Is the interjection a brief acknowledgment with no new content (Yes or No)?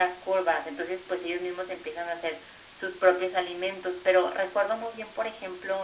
Yes